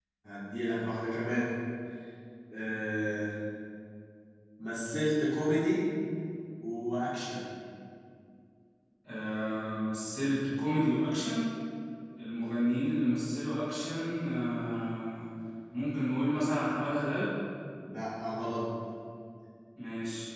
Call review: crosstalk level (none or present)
none